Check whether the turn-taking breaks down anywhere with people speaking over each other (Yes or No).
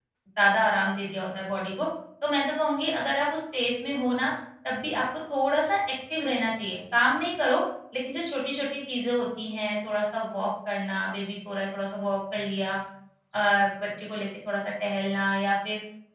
No